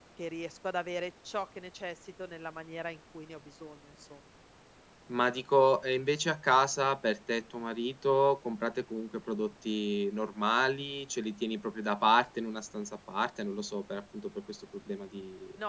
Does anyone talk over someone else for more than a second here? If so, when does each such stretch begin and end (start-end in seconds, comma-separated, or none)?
none